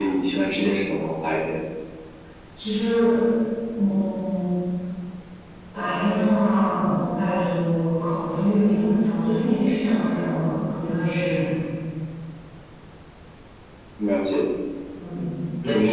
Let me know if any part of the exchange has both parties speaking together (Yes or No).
No